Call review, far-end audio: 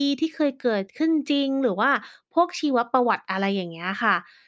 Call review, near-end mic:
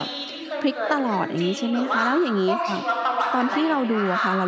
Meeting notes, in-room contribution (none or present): present